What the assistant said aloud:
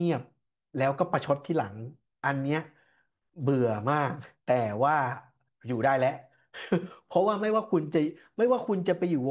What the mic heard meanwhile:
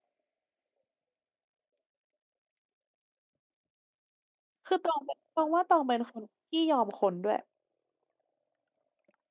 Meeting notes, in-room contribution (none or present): present